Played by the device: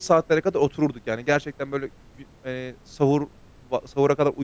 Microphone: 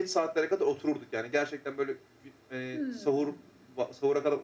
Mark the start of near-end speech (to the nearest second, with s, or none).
3 s